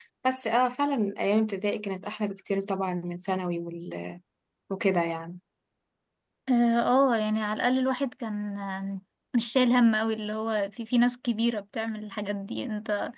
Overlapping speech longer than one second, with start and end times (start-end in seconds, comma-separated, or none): none